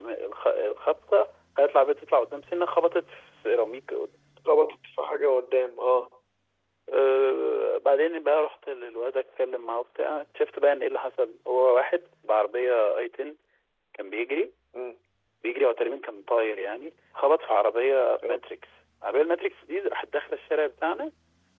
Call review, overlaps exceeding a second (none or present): none